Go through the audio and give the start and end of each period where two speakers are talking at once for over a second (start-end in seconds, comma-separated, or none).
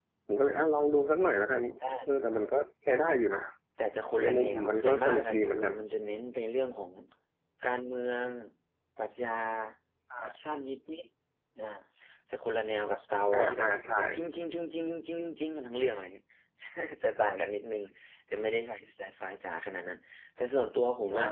4.2-5.7